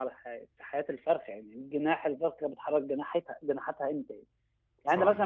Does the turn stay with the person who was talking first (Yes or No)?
Yes